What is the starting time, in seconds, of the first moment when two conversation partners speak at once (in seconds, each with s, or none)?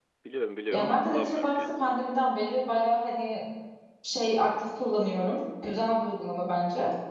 0.7 s